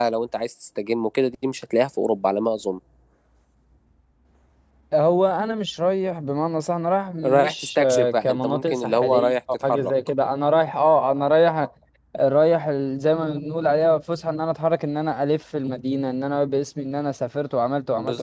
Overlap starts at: 7.2 s

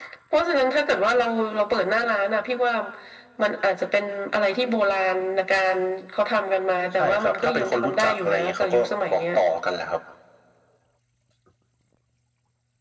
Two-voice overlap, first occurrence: 7.0 s

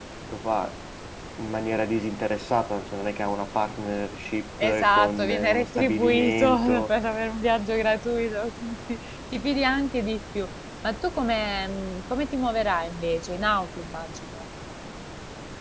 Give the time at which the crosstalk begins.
4.6 s

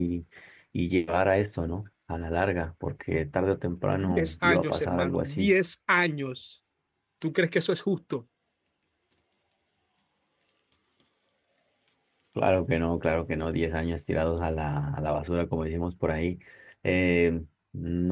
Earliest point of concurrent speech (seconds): 3.9 s

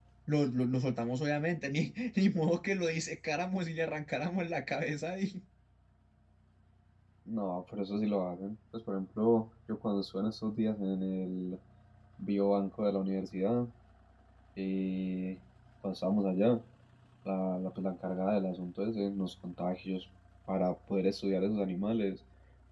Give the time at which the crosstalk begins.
none

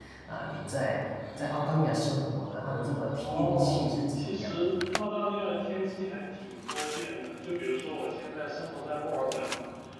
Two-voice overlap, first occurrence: 3.2 s

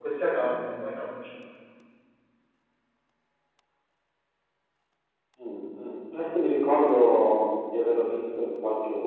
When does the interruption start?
none

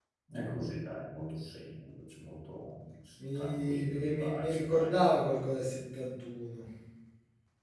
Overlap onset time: 3.2 s

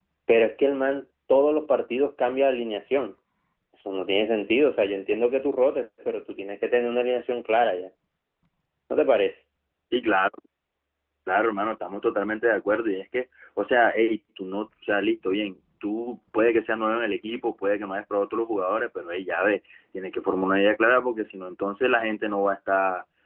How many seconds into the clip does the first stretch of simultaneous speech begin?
none

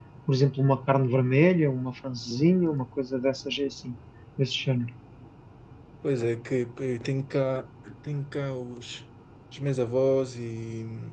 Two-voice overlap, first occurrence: none

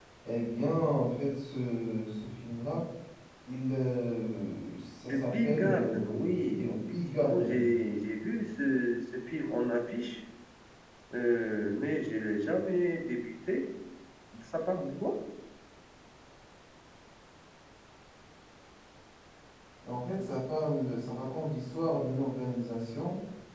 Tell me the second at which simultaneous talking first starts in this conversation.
5.1 s

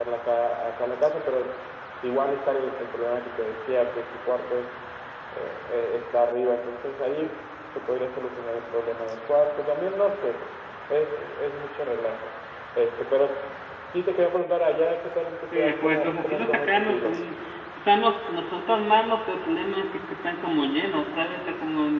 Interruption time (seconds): 15.5 s

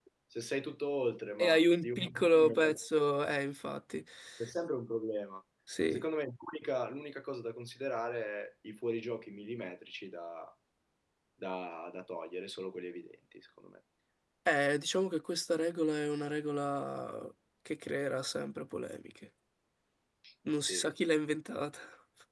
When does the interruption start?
1.4 s

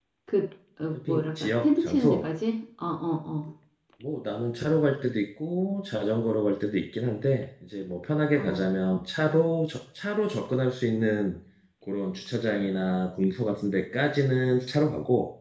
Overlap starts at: 1.1 s

